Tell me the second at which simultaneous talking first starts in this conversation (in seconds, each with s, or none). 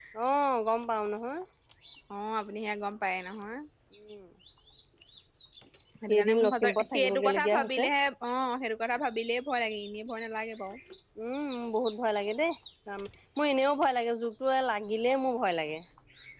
6.1 s